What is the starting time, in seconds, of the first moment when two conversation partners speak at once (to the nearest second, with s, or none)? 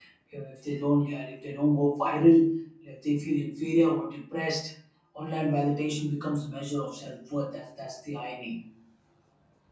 none